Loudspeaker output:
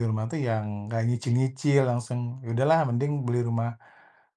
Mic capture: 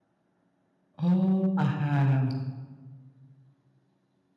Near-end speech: present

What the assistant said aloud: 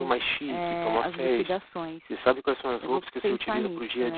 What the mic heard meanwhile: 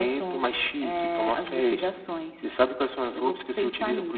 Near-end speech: none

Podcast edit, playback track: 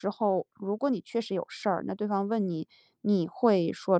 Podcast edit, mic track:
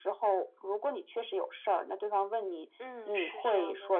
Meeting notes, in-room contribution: present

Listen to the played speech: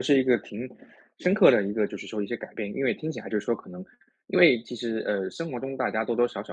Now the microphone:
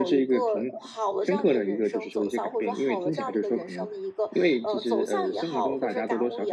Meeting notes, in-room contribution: present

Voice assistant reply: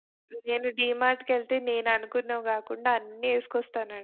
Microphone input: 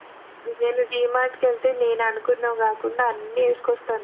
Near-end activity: none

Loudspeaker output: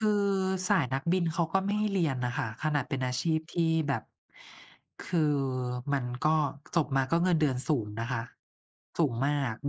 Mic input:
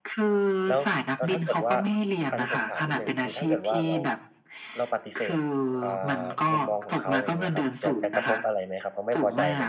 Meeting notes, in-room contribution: present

